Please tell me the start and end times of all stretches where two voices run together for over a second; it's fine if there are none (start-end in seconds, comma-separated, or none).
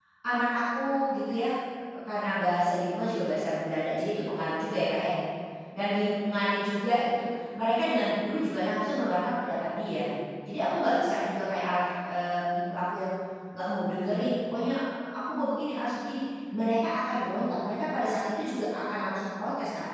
none